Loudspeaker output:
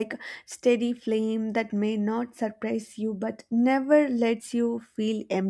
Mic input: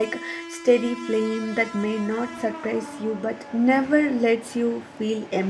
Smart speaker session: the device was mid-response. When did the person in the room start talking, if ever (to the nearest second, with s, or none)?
none